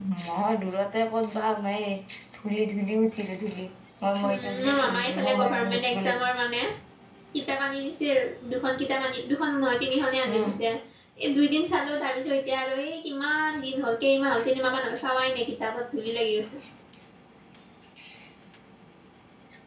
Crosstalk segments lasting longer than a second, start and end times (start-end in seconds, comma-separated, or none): 4.3-6.3